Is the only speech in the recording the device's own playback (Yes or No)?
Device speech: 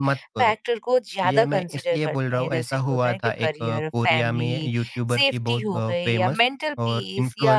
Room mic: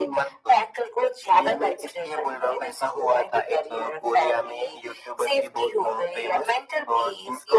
Yes